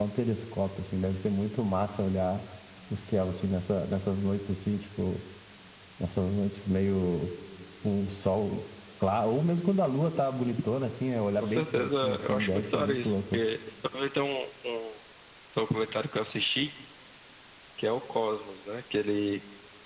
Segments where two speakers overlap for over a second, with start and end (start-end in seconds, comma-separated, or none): 11.4-13.4